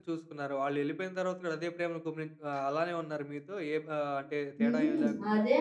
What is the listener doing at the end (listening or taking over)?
taking over